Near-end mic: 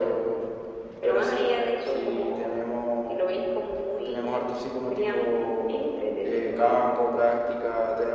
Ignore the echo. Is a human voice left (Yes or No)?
No